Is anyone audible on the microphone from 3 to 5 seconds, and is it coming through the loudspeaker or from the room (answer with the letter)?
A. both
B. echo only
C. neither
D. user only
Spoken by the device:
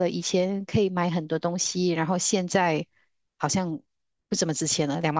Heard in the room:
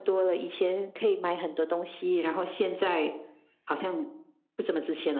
B